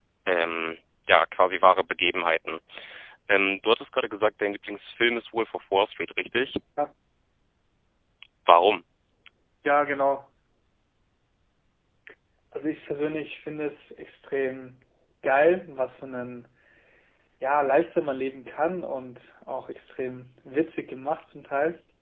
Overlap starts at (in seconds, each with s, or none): none